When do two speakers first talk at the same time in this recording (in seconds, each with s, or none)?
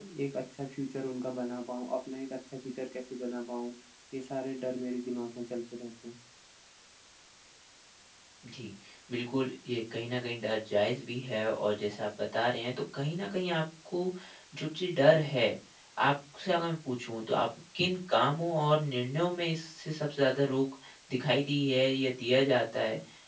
none